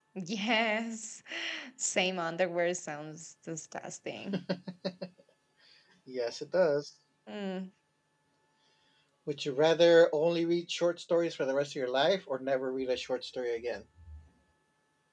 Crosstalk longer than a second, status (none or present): none